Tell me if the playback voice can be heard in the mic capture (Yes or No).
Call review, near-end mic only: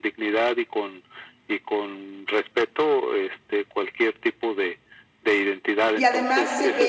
Yes